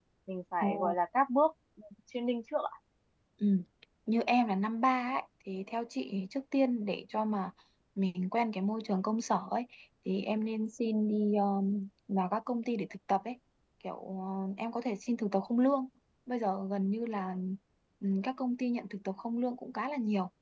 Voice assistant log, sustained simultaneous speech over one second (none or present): none